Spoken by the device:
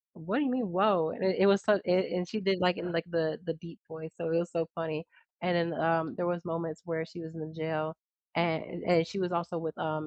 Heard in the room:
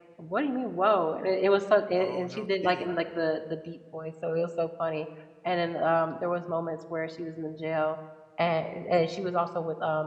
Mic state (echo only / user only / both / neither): both